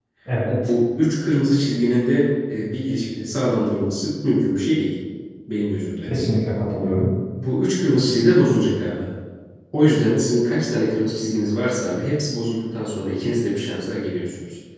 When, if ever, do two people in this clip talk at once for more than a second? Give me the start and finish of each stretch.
none

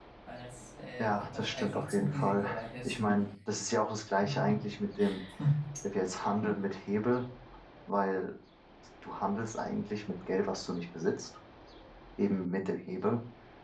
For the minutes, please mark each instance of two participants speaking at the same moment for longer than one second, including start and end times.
1.0-2.5

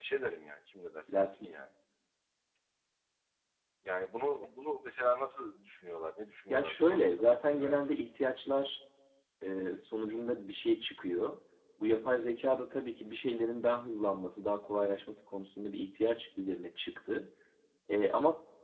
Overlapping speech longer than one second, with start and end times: 6.5-7.8

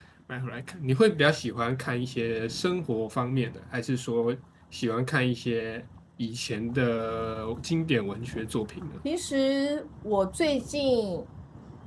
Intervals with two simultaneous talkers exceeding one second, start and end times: none

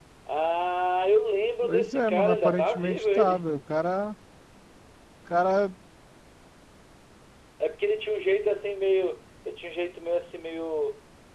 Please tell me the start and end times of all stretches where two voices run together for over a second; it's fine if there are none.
1.6-3.4

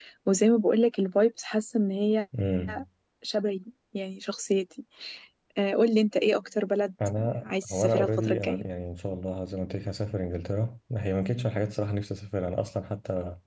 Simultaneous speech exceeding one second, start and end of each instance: 7.2-8.6

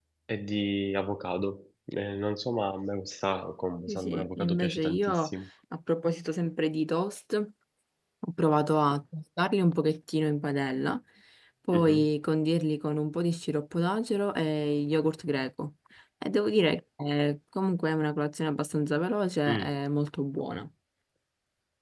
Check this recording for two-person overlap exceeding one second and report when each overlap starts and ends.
3.9-5.3

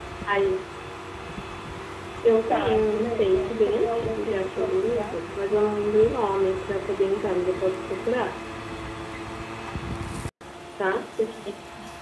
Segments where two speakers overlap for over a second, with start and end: 2.5-5.2

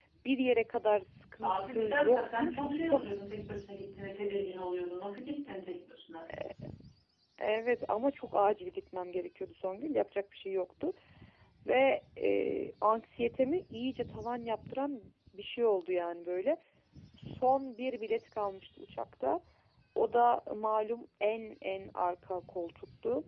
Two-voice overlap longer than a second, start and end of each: 1.4-3.0

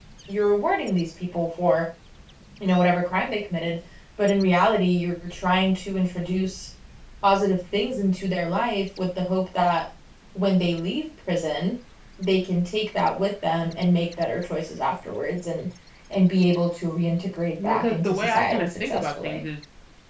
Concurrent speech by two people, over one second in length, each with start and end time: 17.6-19.4

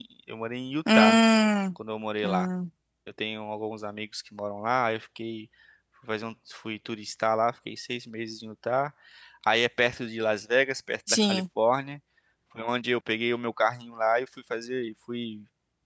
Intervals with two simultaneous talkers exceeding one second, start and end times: none

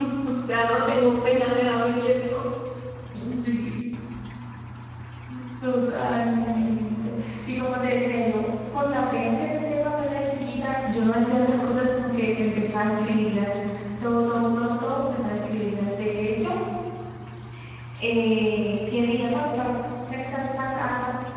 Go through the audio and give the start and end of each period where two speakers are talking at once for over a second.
none

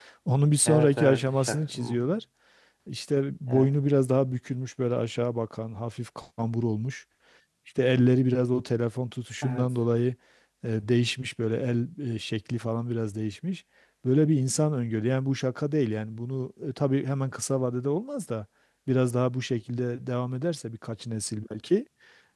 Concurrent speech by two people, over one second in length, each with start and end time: 0.7-2.1

